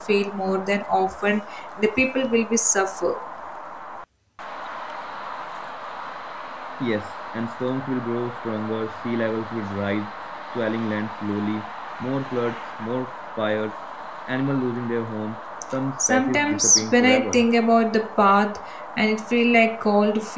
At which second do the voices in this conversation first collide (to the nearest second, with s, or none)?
16 s